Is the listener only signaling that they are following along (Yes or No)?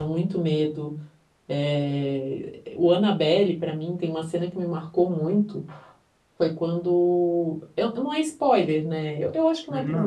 Yes